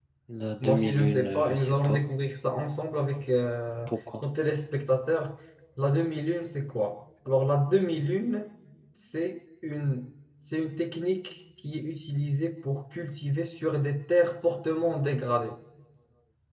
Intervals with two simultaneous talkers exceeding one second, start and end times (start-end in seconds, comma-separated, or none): 0.6-2.0